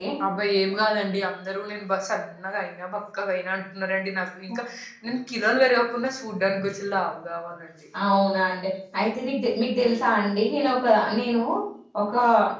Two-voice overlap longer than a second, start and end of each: none

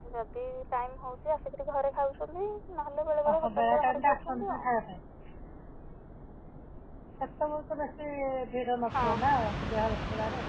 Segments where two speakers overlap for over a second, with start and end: 3.3-4.7

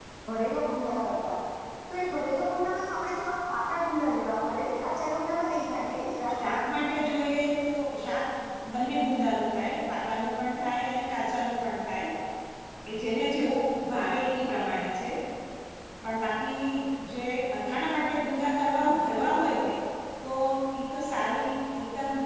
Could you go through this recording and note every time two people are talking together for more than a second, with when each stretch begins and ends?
none

